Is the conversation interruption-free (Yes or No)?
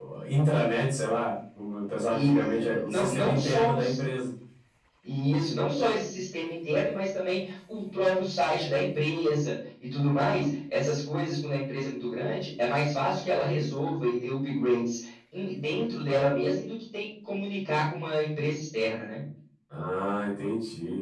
No